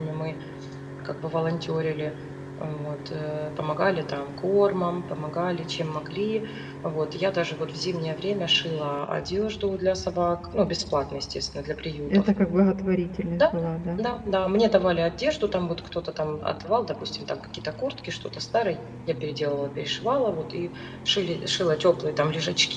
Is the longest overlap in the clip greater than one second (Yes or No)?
No